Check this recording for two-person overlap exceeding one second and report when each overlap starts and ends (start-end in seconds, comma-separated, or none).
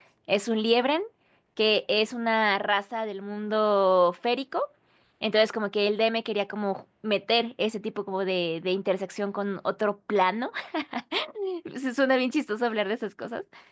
none